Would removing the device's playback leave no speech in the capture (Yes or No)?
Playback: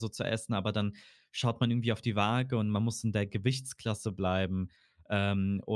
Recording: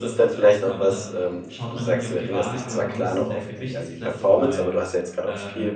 No